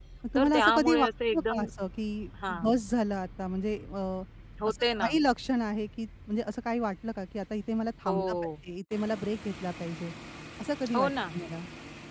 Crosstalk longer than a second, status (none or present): present